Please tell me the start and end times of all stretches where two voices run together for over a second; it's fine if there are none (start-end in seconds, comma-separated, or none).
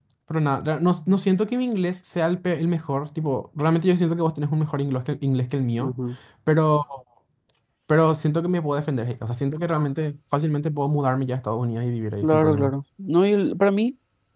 none